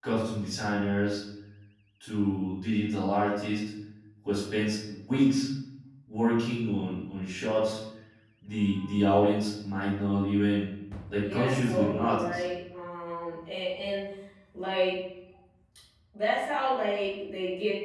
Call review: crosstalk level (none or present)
present